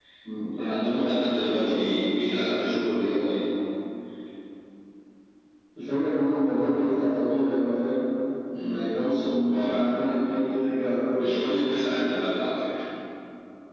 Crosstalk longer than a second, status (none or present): present